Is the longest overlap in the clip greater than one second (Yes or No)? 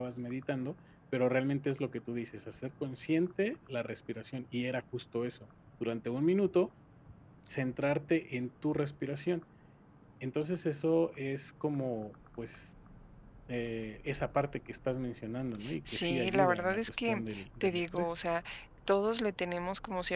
Yes